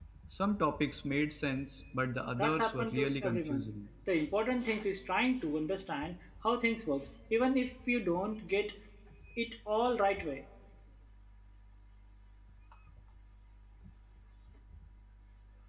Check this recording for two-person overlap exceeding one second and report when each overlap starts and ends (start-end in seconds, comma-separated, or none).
2.4-3.7